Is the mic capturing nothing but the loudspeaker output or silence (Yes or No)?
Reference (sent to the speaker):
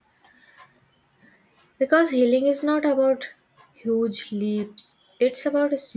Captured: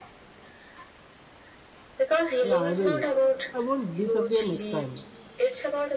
No